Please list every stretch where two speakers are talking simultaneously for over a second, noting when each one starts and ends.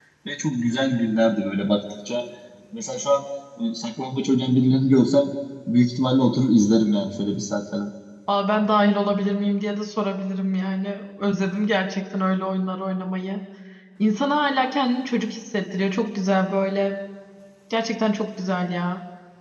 none

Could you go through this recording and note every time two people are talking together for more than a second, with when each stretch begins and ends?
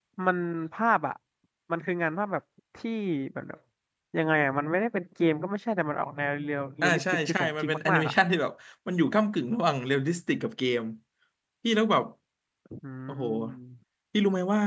6.8-8.1

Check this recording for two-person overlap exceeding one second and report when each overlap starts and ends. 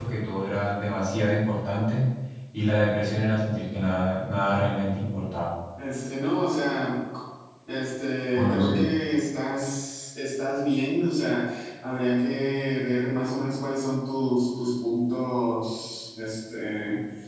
none

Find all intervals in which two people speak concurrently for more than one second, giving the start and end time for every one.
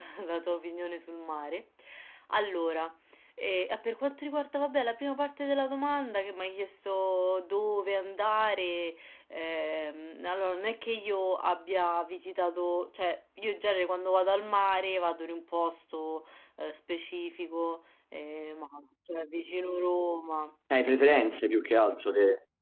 none

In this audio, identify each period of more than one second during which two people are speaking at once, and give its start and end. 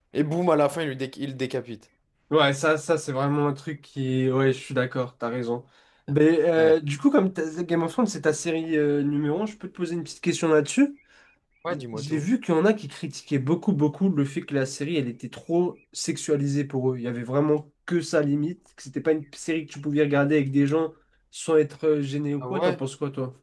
none

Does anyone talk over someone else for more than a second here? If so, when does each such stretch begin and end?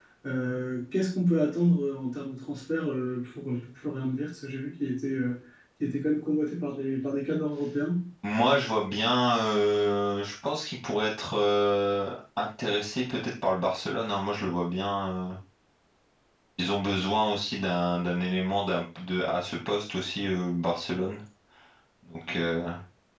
none

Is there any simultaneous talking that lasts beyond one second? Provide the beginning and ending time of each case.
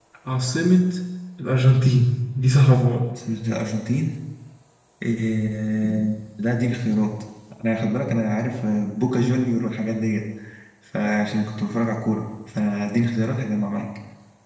none

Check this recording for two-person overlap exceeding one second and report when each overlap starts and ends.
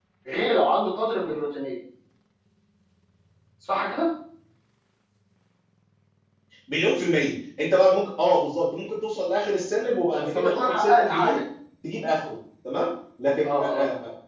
10.2-11.4

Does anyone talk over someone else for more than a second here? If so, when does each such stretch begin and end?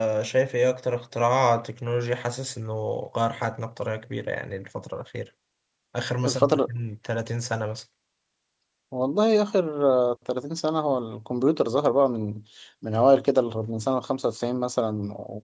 none

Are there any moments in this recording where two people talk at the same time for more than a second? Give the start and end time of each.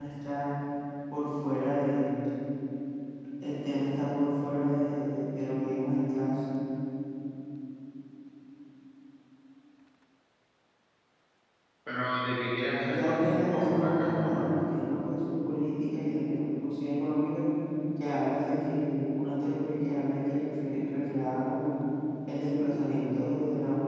12.9-14.5

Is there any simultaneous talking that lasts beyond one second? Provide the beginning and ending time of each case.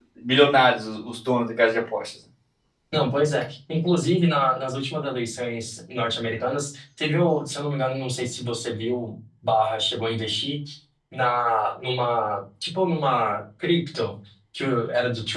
none

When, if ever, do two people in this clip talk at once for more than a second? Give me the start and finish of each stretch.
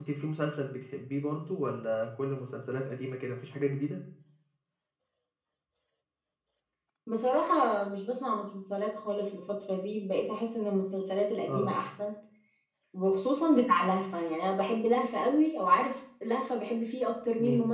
none

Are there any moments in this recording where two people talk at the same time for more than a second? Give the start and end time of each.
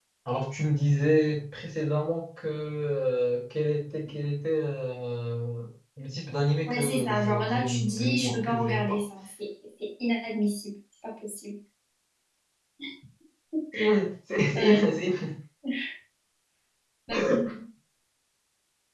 6.7-9.0

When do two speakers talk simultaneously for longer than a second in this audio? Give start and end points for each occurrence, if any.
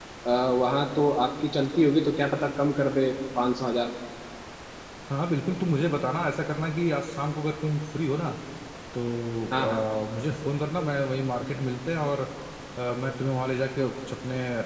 none

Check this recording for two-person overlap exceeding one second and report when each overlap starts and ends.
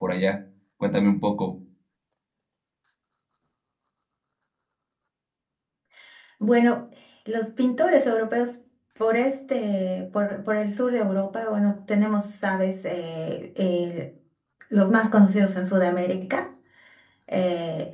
none

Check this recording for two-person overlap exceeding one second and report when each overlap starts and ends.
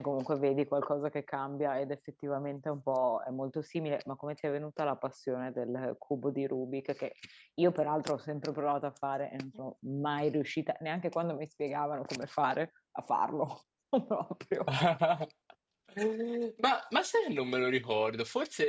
none

